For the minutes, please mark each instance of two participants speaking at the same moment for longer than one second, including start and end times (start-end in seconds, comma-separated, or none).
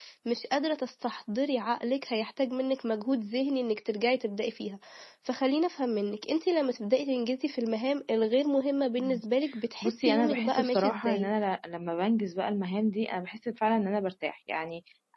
9.8-11.3